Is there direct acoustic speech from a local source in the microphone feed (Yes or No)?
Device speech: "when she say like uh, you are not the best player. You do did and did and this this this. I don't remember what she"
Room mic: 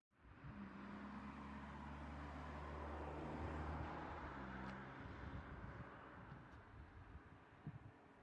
No